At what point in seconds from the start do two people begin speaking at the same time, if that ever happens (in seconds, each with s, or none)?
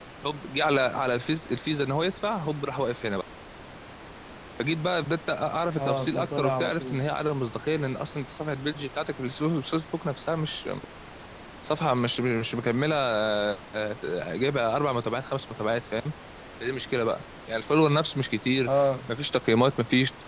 5.8 s